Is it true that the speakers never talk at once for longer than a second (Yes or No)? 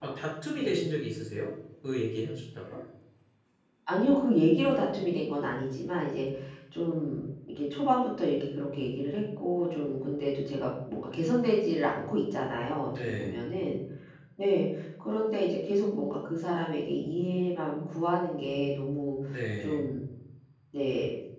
Yes